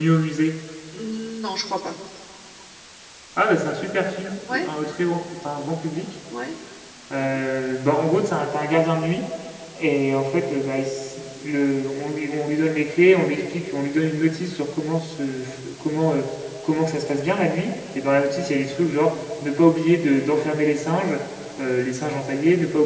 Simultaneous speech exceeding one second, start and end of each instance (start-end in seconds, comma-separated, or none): none